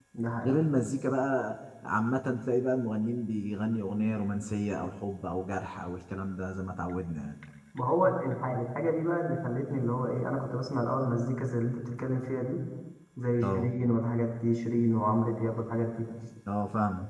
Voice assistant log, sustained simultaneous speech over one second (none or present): none